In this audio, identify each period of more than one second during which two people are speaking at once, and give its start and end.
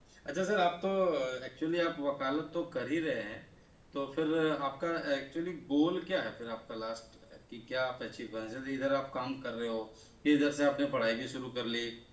none

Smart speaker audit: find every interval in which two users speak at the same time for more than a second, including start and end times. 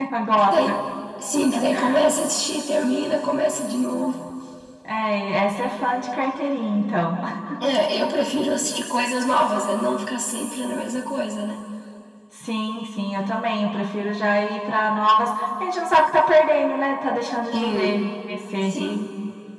none

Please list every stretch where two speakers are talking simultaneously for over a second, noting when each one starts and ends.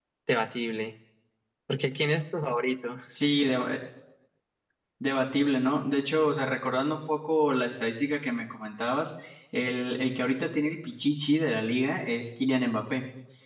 none

